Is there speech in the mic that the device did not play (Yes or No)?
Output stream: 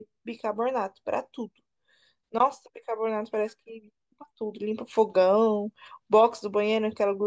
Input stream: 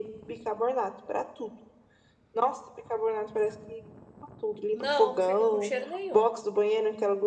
Yes